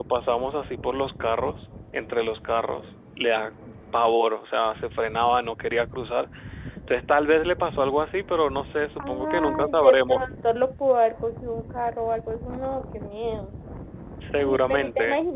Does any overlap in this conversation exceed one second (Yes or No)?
Yes